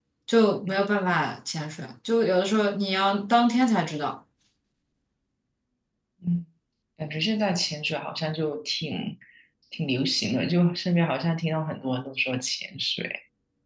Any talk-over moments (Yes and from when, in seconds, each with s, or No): No